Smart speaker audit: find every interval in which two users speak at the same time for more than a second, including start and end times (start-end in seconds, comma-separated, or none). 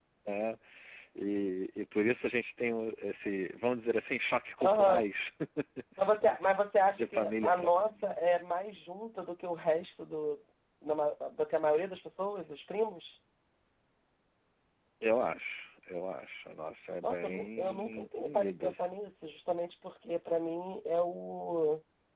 7.0-8.2, 17.0-18.9